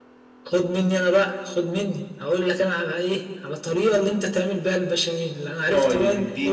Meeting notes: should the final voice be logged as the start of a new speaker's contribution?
Yes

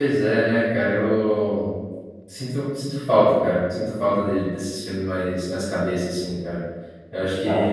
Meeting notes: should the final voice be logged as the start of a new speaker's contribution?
No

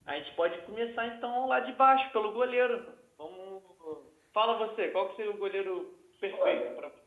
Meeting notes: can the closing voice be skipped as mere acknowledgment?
No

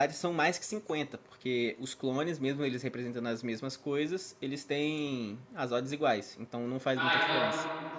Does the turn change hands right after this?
Yes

